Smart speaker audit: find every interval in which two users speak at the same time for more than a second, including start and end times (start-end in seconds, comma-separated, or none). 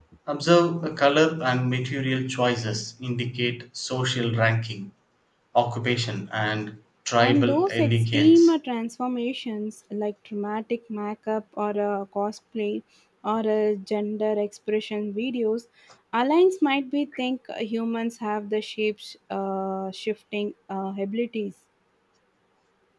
7.2-8.5